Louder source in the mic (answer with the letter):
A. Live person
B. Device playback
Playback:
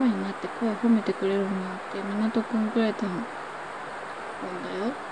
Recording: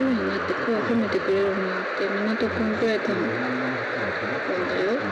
B